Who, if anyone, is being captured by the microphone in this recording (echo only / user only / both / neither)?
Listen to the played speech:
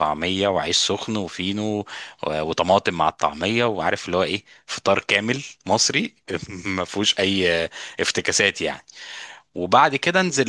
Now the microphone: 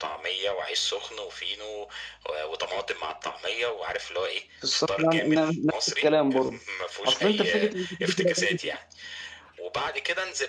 both